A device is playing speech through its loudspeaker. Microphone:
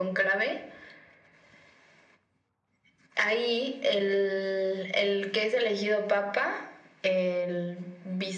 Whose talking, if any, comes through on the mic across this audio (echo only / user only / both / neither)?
echo only